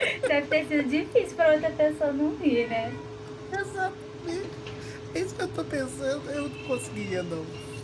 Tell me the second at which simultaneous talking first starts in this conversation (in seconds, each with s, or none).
none